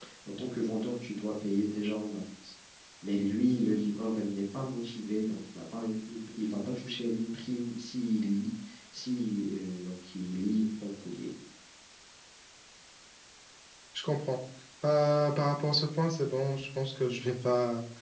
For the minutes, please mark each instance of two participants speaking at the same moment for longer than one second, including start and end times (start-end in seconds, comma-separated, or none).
none